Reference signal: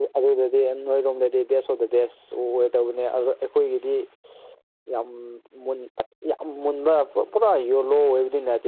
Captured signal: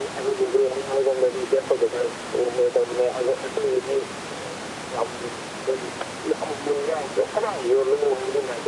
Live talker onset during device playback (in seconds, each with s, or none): none